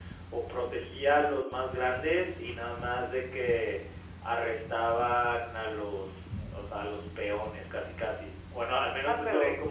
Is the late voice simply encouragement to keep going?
Yes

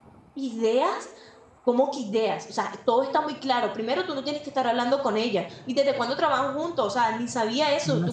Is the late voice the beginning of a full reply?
Yes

